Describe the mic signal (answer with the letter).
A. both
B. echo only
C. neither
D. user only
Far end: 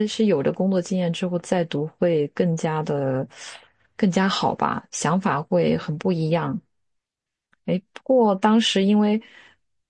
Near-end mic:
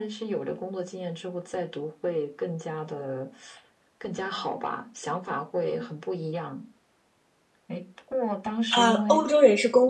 A